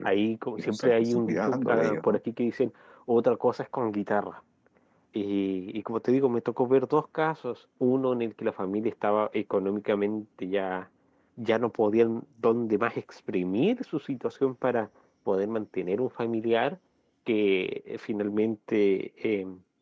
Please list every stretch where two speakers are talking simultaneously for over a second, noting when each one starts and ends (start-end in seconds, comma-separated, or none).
0.6-2.2